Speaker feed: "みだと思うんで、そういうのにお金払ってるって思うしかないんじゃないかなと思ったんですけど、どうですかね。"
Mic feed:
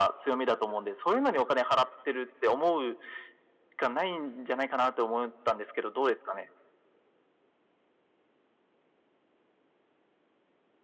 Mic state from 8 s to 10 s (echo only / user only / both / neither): neither